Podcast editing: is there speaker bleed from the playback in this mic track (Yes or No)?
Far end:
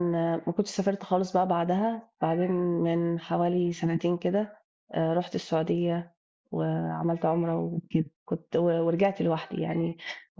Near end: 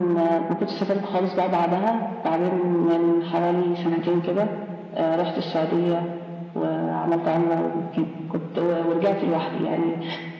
Yes